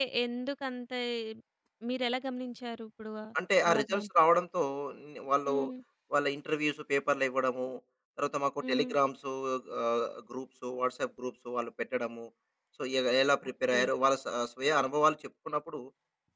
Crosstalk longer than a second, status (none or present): none